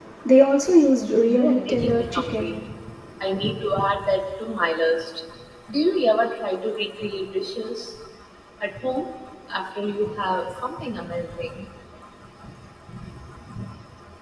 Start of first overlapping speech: 1 s

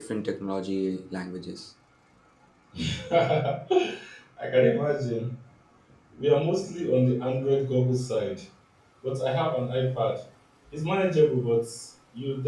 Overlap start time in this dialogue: none

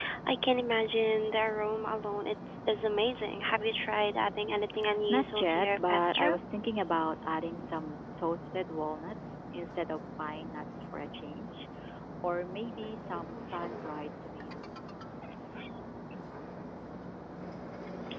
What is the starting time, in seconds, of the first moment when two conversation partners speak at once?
5 s

